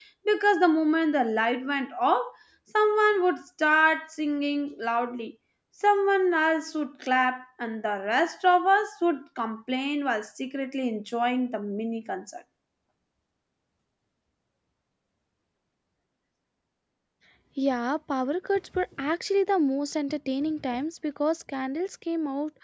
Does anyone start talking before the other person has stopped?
No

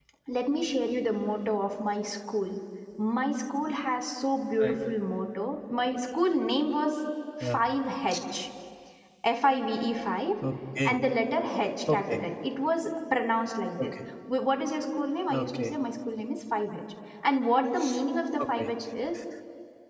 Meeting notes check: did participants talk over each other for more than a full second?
No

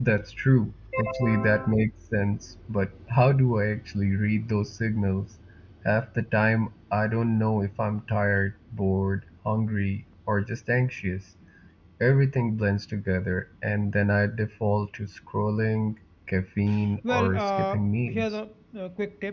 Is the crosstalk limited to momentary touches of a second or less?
No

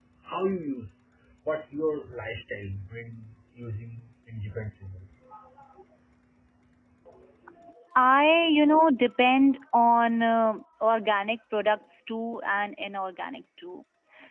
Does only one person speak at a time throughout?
Yes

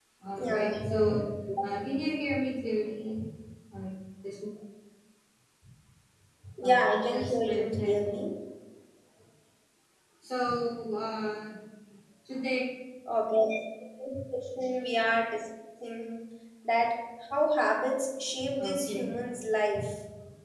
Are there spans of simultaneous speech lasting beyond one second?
Yes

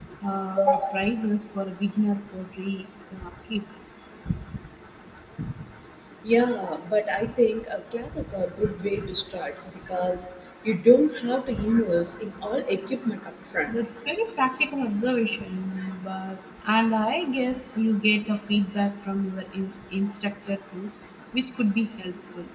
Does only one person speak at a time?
Yes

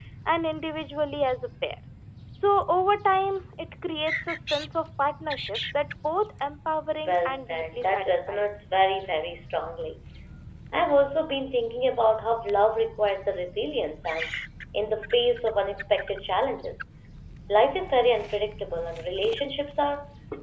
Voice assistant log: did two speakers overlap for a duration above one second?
Yes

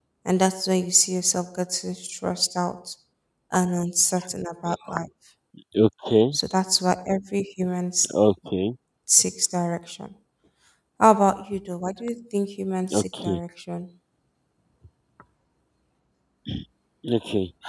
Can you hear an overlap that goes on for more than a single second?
No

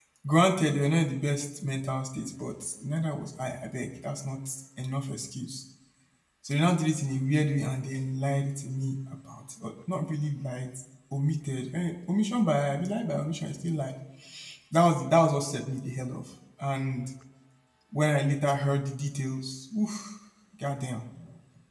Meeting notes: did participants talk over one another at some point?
No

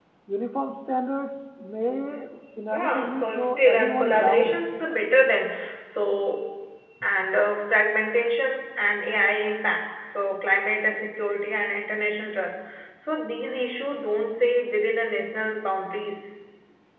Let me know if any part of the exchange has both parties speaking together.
Yes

